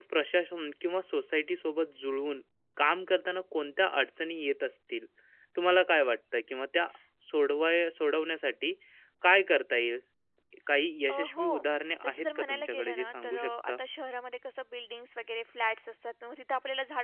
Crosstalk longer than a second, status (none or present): present